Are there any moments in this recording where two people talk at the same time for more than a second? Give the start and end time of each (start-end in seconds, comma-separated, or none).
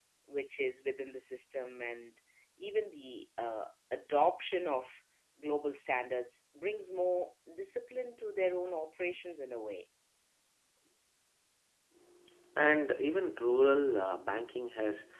none